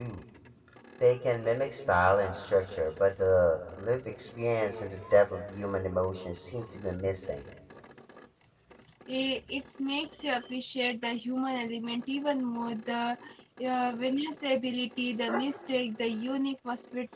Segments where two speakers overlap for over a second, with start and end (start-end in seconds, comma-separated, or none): none